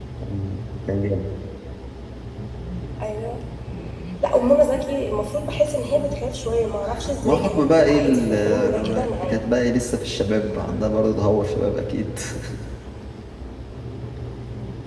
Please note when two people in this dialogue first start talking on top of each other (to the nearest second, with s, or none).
7 s